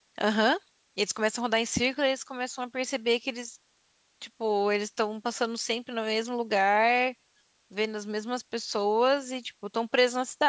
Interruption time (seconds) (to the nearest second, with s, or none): none